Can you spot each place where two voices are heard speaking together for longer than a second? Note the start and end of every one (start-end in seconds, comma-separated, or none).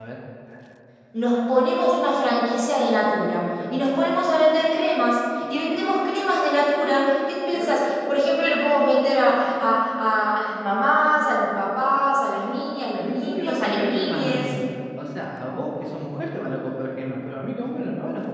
13.0-14.4